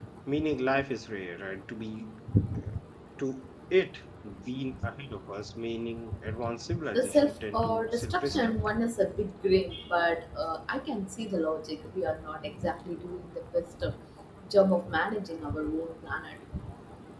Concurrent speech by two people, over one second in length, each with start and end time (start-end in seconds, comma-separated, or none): 6.9-8.5